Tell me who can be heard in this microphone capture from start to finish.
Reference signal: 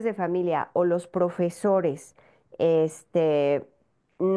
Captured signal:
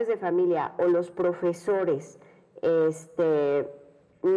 echo only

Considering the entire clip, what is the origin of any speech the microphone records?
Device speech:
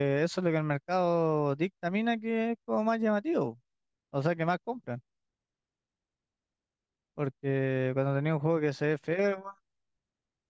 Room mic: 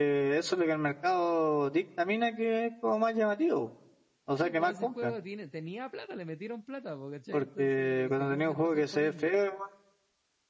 both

